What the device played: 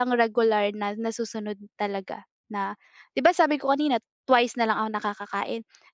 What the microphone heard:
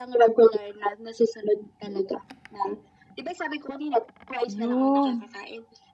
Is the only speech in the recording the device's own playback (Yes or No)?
No